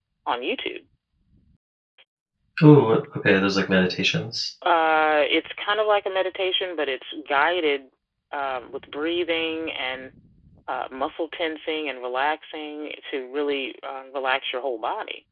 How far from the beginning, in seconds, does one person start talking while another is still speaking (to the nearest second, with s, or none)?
none